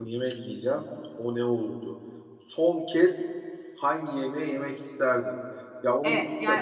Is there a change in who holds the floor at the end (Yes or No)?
Yes